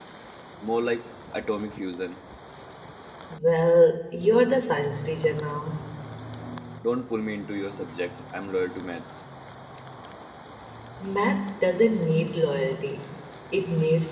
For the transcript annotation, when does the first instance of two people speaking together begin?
none

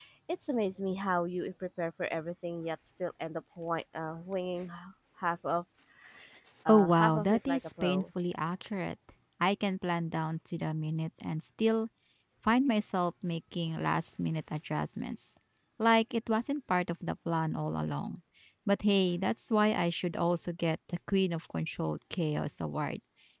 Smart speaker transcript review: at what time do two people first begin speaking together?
6.7 s

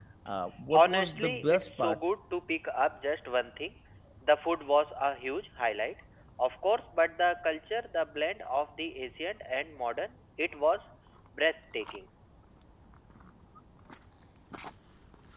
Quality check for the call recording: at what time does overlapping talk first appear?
0.7 s

